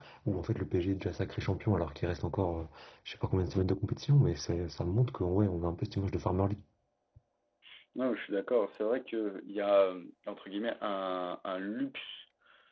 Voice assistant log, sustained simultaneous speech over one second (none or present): none